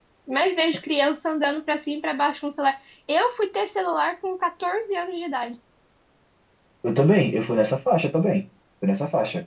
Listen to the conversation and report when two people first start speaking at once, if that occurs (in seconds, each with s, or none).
none